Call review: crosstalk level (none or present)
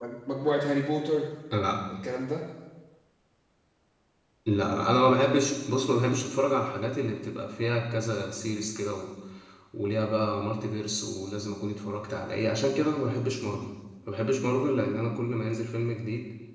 none